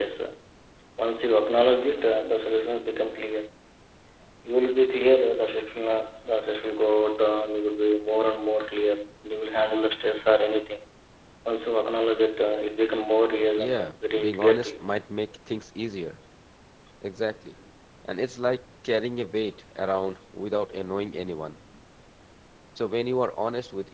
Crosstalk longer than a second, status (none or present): present